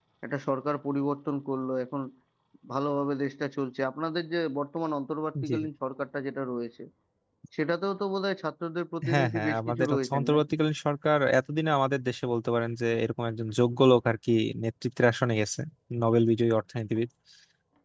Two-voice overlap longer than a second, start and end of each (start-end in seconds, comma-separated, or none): 9.1-10.4